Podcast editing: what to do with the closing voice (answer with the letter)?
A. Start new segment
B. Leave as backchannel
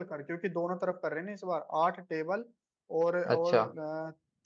B